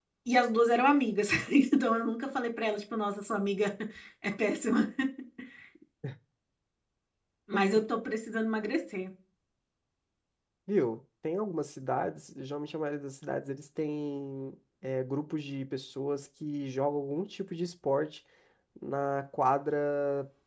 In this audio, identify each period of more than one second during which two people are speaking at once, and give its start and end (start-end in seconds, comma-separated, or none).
none